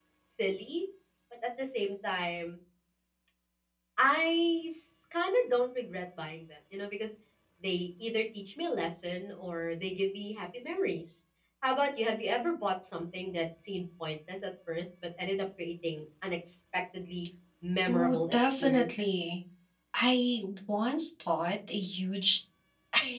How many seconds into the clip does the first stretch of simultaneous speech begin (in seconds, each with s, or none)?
17.9 s